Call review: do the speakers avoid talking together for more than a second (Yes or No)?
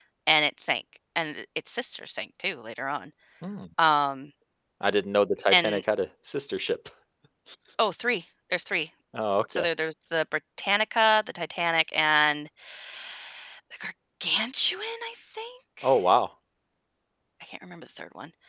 Yes